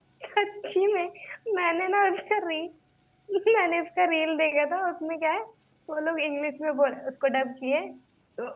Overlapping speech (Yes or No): No